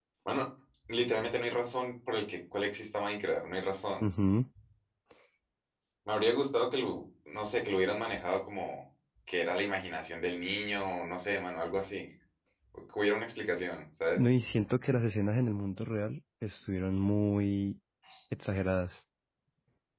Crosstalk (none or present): none